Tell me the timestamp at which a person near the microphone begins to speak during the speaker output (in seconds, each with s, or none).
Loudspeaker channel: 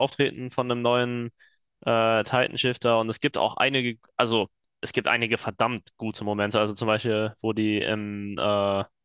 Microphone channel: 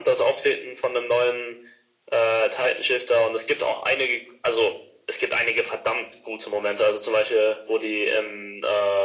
none